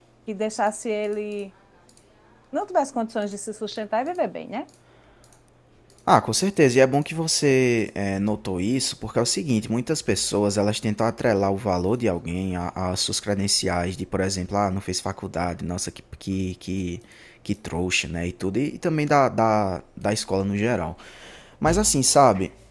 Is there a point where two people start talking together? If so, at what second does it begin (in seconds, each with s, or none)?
none